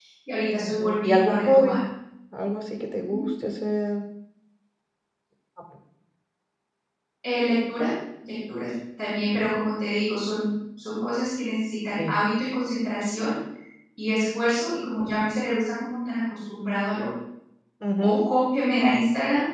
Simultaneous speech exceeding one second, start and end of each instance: 0.6-1.8

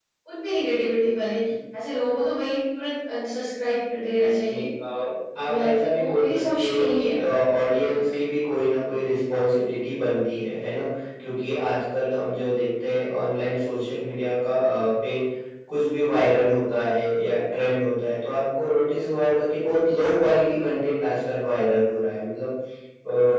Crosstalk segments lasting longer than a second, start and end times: 5.5-7.2

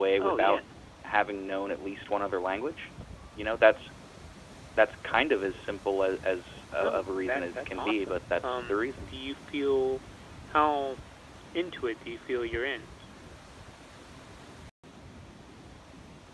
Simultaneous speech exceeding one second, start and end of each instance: 6.7-9.1

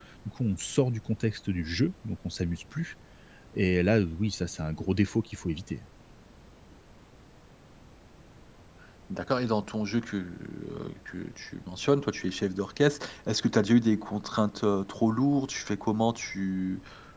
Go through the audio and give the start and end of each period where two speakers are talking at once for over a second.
none

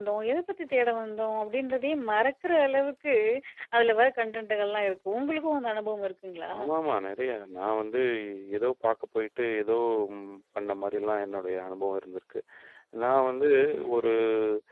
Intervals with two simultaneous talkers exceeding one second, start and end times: none

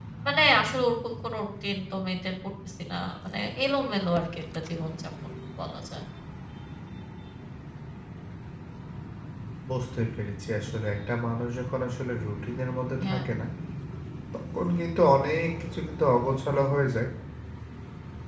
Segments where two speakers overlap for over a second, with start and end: none

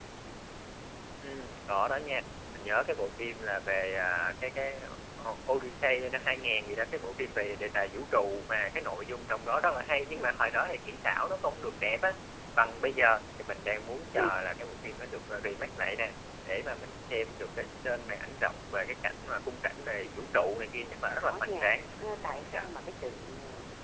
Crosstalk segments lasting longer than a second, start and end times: 20.8-22.6

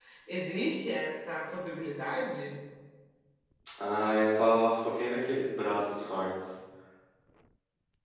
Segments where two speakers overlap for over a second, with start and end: none

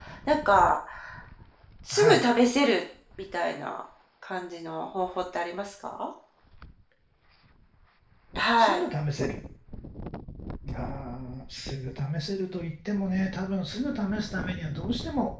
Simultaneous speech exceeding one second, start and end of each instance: none

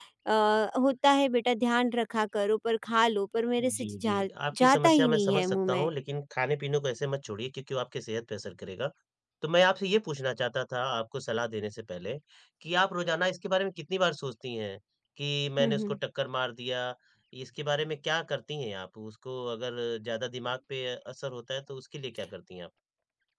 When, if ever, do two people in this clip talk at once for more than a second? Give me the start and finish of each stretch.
3.8-5.9

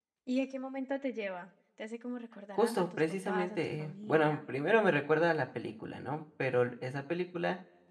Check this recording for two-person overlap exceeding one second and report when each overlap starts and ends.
2.6-4.4

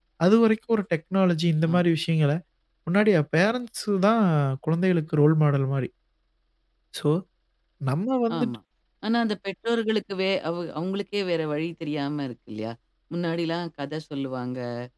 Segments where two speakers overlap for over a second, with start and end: none

